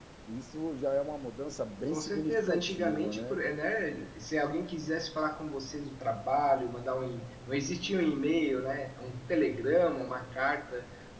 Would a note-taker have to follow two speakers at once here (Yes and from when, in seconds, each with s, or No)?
Yes, from 1.9 s